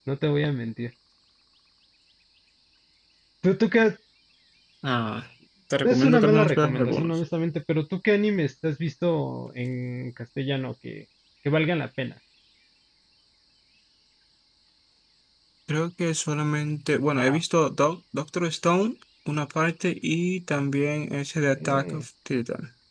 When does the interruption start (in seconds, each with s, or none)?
5.8 s